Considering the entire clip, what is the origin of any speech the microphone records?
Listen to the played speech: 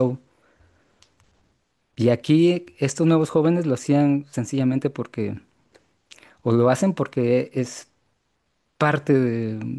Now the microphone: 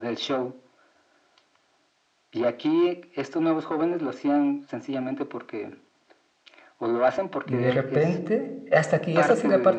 both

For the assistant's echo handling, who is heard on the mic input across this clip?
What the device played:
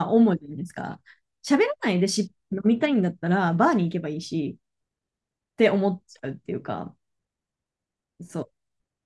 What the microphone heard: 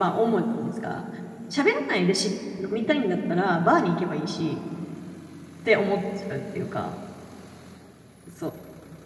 echo only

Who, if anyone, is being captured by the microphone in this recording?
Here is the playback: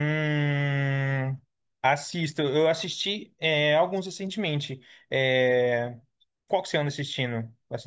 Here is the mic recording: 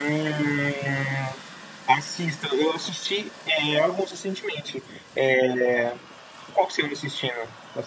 echo only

